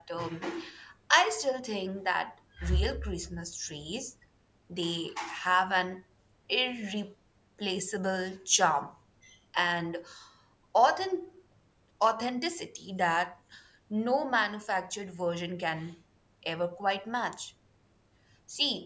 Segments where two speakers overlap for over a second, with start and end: none

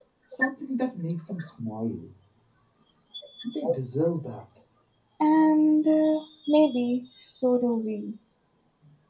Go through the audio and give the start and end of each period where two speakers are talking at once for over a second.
none

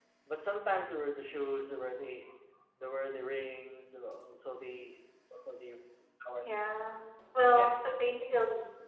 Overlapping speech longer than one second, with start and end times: none

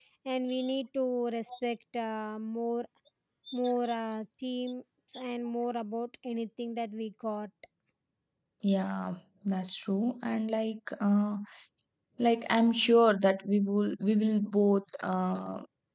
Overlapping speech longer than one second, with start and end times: none

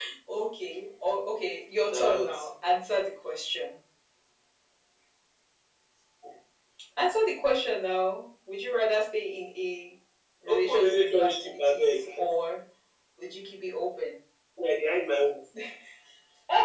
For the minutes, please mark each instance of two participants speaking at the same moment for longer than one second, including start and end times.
10.5-12.0

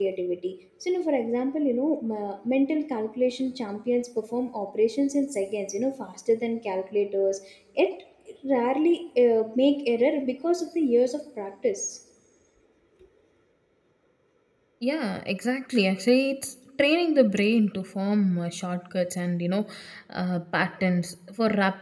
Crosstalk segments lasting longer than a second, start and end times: none

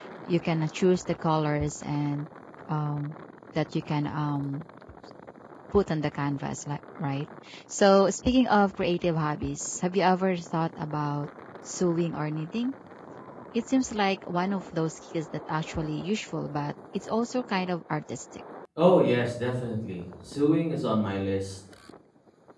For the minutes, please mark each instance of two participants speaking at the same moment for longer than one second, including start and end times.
none

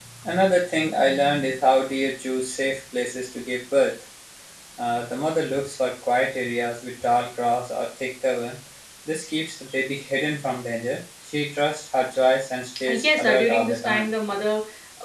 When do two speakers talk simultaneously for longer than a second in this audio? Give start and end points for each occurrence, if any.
12.9-14.1

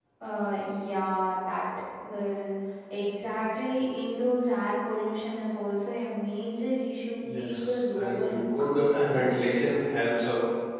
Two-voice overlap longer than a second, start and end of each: 7.2-8.5

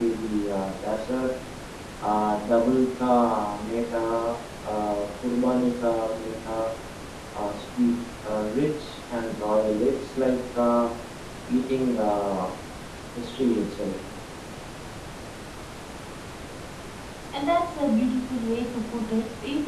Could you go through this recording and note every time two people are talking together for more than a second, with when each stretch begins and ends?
none

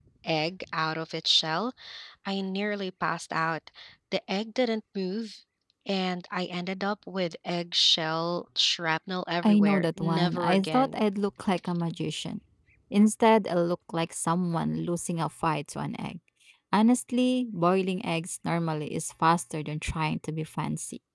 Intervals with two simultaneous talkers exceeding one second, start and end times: 9.4-11.0

